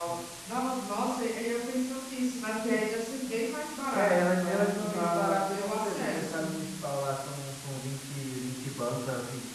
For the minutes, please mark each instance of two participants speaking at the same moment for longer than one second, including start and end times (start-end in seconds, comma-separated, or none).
3.9-6.5